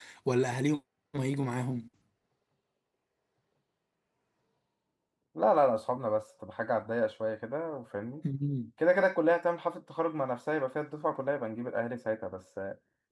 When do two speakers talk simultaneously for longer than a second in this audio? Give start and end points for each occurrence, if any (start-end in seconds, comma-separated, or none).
none